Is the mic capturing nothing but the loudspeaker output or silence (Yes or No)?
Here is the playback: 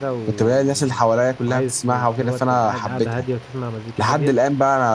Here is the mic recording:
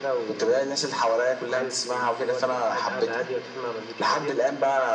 Yes